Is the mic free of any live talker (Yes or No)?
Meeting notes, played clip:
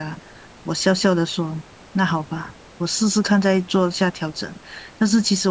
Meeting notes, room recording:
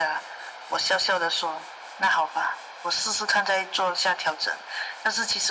Yes